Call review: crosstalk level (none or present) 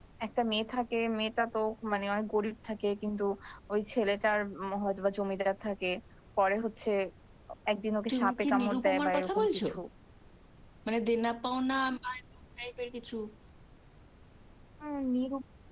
present